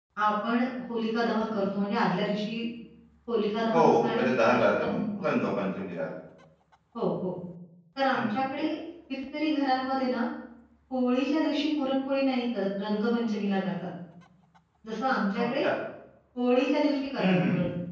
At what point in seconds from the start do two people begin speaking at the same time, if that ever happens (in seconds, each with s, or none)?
3.7 s